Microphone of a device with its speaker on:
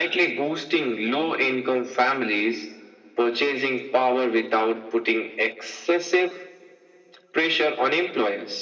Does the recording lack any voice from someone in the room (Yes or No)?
Yes